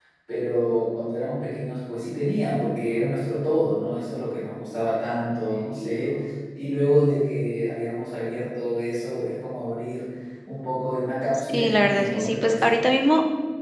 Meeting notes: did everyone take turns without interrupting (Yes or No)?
No